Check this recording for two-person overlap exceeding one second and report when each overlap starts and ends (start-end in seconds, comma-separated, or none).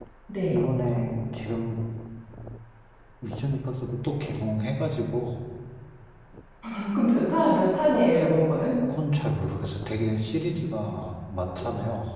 none